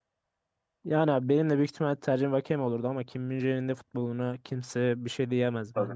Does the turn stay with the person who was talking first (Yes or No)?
No